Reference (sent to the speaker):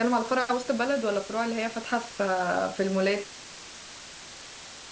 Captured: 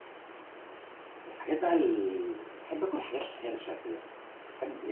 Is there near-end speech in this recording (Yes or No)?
Yes